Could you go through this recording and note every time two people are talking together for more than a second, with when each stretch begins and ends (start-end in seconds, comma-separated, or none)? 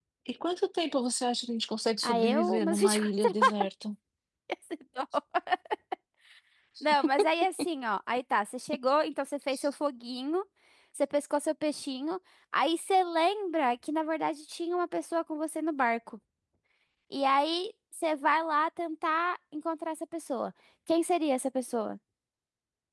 2.0-3.3